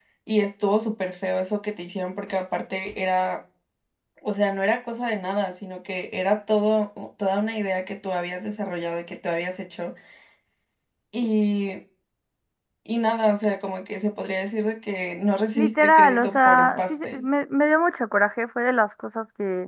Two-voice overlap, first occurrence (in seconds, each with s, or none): 15.6 s